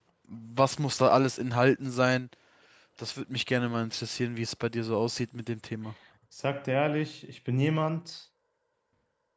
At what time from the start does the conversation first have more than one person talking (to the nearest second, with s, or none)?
none